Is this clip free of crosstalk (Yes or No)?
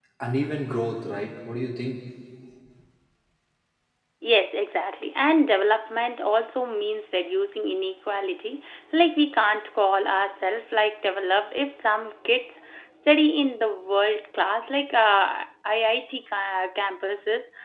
Yes